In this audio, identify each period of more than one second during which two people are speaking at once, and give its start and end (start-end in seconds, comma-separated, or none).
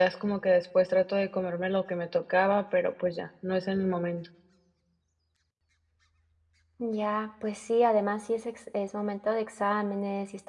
none